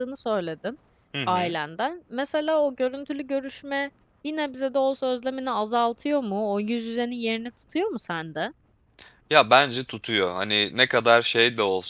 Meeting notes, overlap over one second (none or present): none